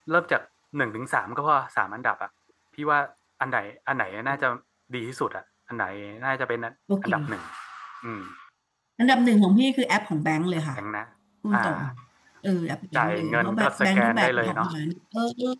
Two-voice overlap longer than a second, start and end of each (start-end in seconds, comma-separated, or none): 12.9-14.7